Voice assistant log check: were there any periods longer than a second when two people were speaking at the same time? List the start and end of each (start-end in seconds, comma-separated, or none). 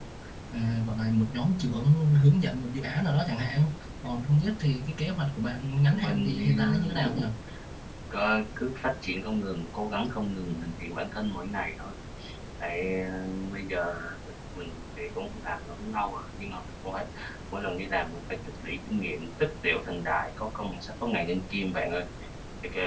5.9-7.2